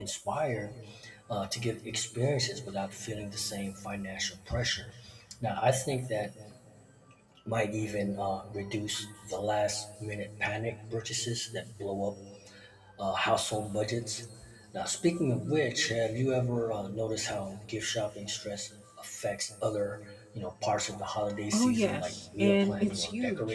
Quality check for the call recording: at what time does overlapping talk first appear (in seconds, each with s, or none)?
21.5 s